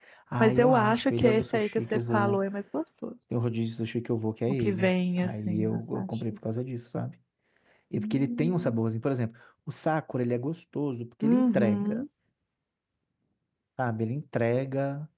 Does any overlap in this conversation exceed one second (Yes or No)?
Yes